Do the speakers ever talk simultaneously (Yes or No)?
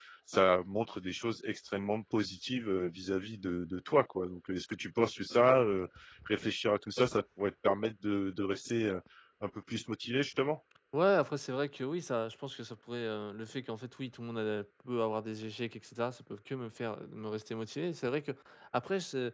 No